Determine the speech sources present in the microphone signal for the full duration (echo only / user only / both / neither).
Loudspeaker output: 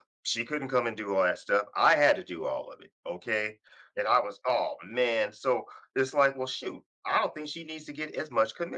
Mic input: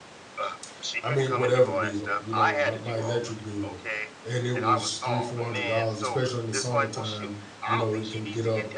both